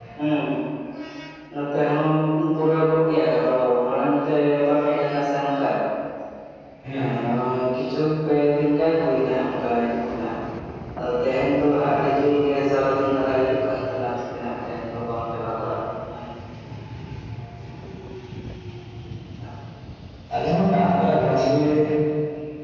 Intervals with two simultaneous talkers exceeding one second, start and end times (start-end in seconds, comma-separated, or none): none